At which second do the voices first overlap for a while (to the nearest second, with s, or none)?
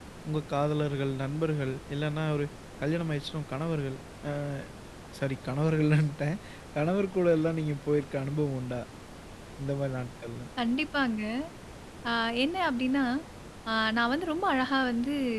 none